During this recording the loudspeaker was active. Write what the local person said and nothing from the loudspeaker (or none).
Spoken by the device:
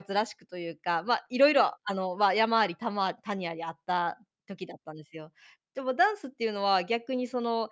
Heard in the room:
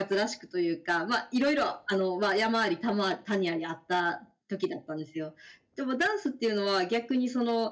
none